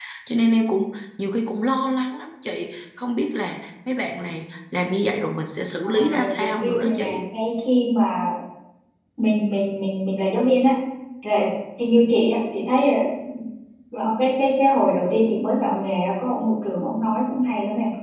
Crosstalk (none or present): present